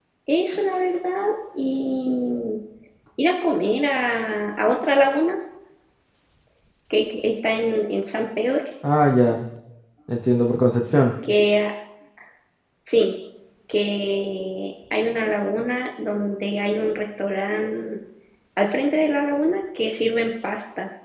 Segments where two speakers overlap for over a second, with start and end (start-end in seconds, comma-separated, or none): none